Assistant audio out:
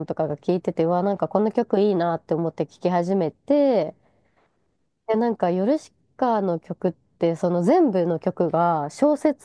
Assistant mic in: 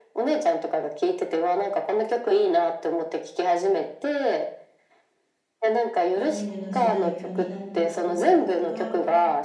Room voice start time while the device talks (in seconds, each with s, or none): 6.1 s